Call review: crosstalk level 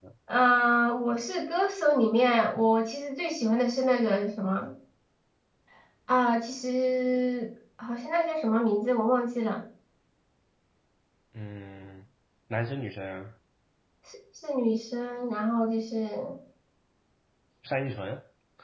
none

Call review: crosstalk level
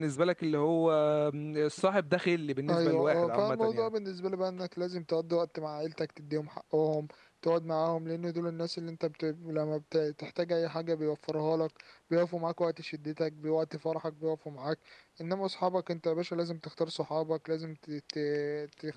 present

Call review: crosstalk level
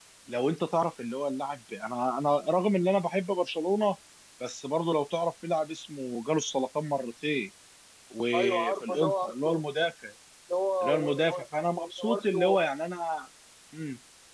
present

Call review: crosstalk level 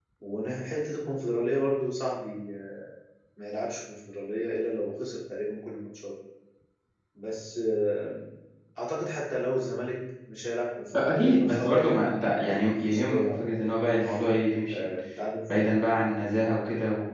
present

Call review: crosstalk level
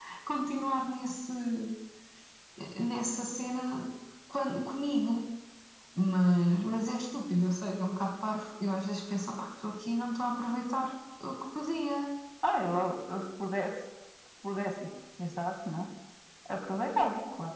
none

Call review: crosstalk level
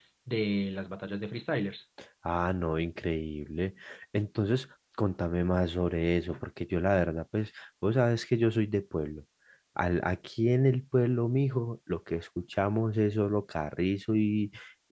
none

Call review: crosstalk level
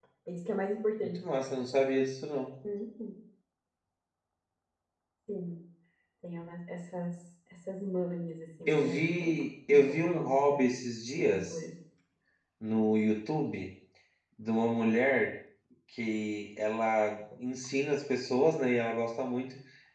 present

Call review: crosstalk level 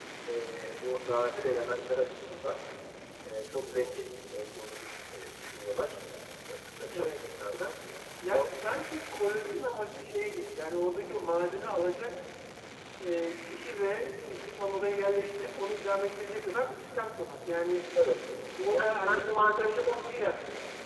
present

